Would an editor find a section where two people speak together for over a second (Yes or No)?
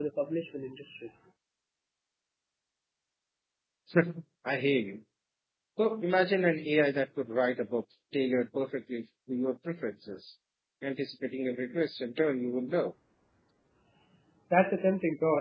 No